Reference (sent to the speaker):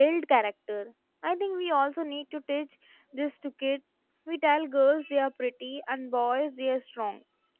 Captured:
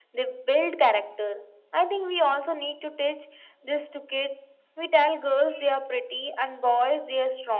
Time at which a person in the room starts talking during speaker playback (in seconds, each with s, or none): none